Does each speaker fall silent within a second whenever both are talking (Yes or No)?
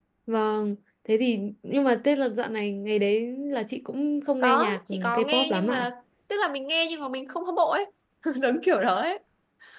No